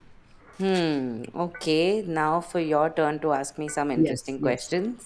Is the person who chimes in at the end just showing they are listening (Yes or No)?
No